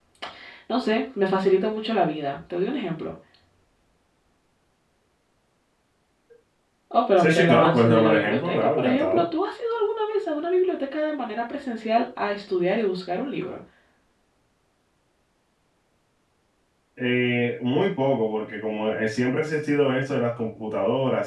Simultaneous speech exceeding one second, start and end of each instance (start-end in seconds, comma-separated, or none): 7.2-9.2